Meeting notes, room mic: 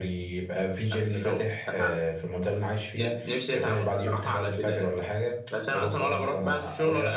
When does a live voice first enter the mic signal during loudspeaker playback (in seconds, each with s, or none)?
none